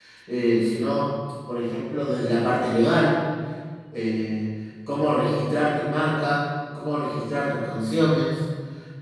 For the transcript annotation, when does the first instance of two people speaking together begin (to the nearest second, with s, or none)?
none